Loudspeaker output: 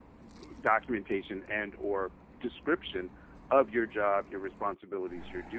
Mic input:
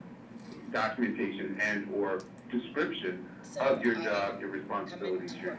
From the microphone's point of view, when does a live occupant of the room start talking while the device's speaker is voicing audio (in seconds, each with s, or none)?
3.4 s